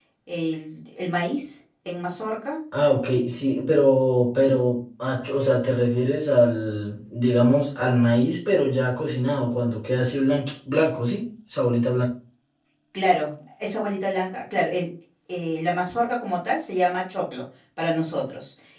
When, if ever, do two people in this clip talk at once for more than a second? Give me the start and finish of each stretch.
none

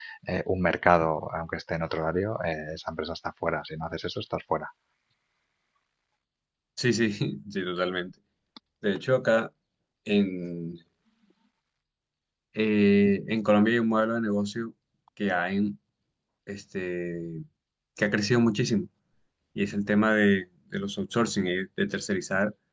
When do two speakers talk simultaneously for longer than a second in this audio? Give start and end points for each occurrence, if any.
none

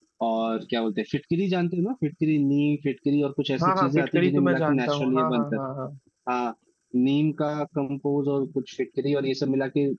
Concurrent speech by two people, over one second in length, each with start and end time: 3.6-5.6

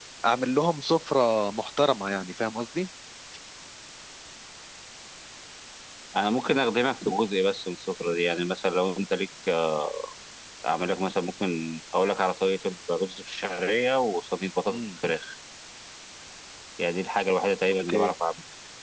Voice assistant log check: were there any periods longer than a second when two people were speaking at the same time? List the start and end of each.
none

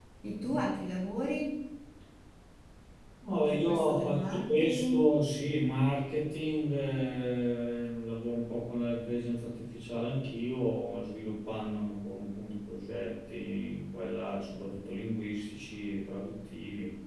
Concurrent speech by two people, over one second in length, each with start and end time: 3.3-5.0

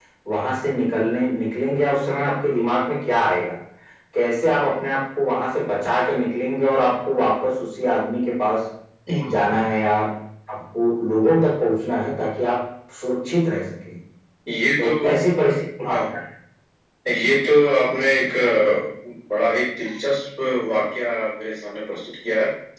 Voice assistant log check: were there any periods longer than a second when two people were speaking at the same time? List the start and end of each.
none

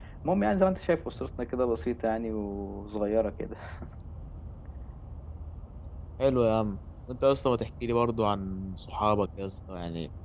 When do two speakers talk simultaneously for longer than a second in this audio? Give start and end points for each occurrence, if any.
none

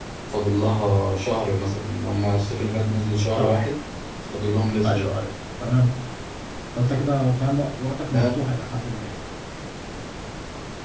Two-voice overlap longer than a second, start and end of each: none

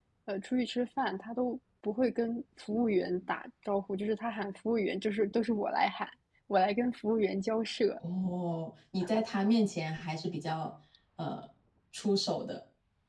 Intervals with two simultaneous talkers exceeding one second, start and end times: none

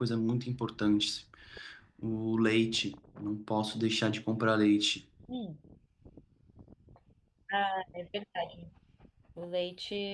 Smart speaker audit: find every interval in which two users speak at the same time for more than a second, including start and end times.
none

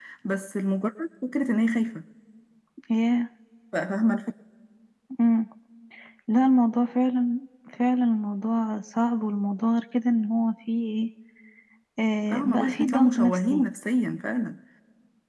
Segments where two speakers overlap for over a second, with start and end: 12.3-13.6

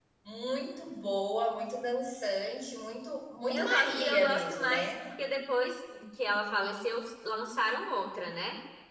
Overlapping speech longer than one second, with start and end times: 3.5-5.0

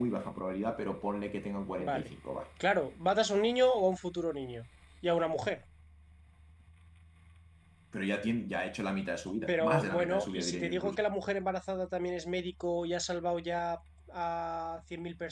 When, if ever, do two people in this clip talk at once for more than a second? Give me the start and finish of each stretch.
9.5-11.0

